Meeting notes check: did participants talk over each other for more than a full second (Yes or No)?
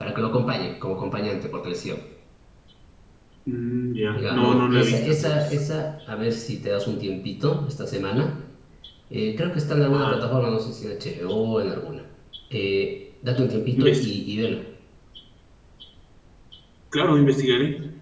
Yes